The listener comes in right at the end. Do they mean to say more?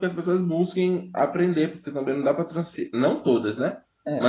No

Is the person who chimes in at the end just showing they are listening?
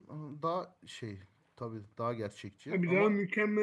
No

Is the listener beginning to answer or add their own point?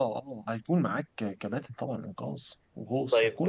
Yes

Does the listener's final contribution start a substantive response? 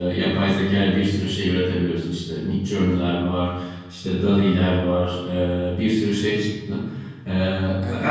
No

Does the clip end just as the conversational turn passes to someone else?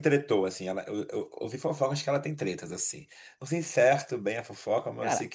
No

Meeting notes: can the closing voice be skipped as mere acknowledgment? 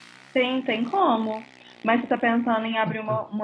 Yes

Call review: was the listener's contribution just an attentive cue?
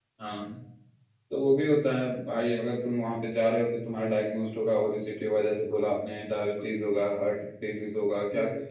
Yes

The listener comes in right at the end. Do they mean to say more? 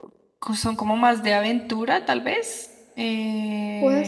Yes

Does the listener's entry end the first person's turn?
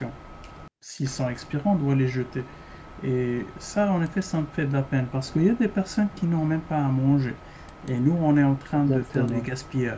No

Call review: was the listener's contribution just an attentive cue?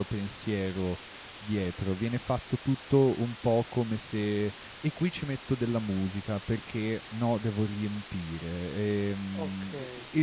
Yes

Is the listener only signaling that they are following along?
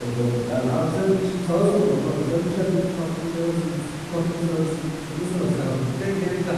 No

